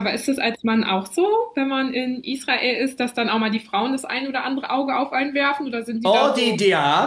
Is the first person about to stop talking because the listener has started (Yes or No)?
Yes